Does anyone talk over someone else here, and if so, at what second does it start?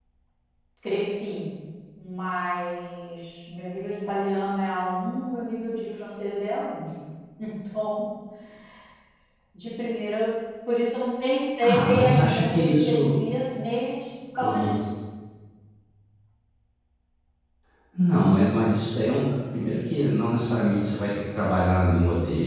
11.6 s

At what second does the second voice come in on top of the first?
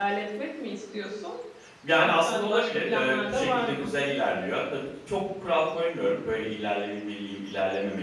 2.0 s

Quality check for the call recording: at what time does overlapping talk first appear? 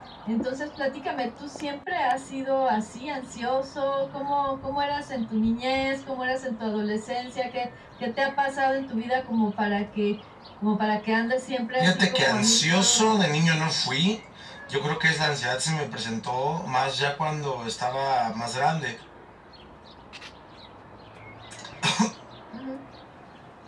11.8 s

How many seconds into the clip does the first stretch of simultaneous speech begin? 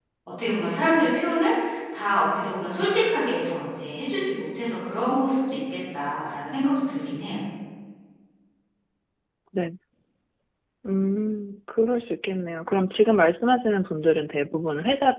none

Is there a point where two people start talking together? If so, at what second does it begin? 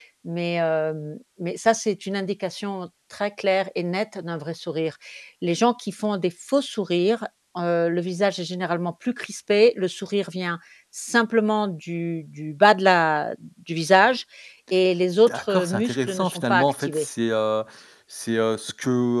15.3 s

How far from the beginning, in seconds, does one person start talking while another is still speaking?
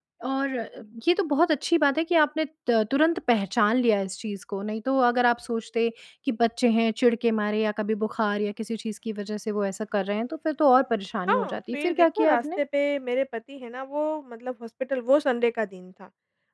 11.3 s

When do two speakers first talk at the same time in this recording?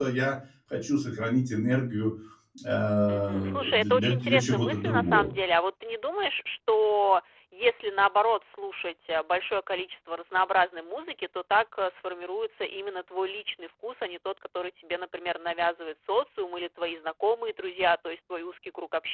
3.1 s

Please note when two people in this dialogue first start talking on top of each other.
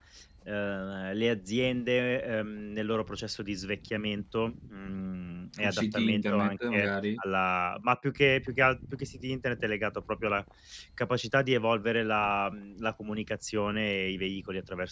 5.6 s

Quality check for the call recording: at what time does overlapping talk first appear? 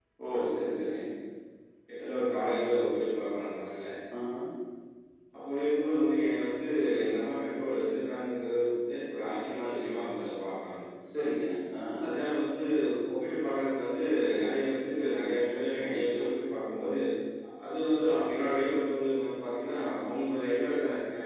none

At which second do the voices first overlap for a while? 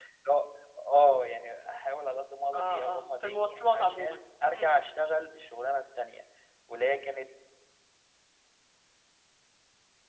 2.5 s

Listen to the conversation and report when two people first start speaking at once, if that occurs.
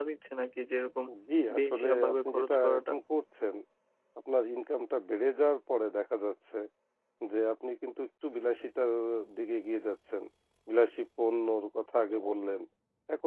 1.6 s

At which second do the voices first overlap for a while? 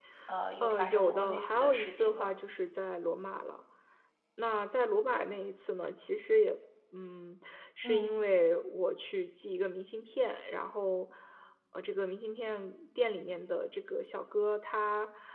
0.6 s

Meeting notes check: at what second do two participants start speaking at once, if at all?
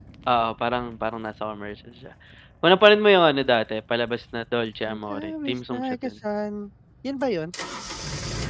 4.9 s

